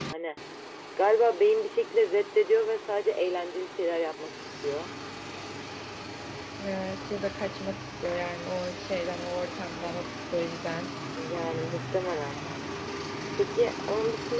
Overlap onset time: none

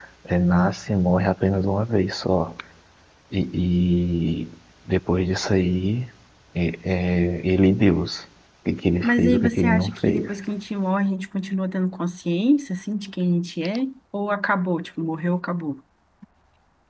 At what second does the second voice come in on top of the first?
9 s

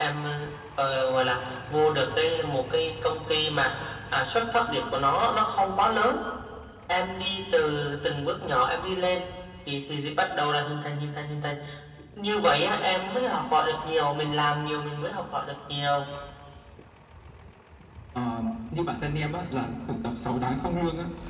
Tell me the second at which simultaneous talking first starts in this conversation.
none

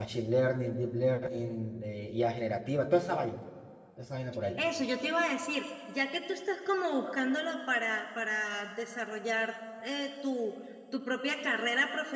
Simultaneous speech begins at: none

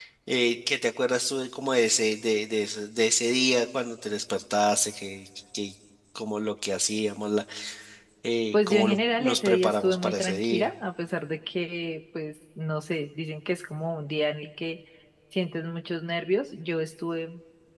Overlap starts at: 9 s

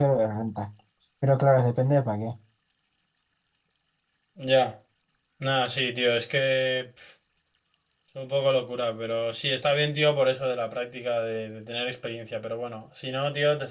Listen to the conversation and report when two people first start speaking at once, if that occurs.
none

